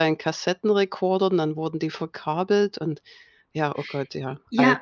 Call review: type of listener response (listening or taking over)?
taking over